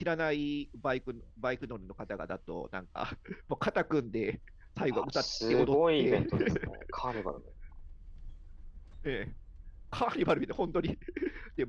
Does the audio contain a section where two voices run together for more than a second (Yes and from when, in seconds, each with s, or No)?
Yes, from 4.9 s